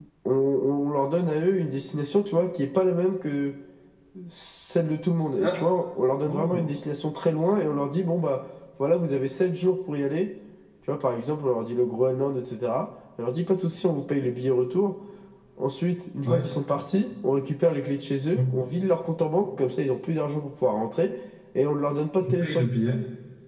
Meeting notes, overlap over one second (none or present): none